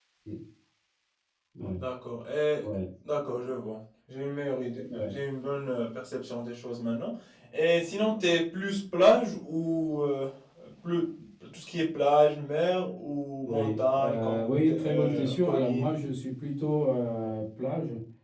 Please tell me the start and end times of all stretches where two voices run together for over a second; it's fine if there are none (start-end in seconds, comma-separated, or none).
13.4-15.9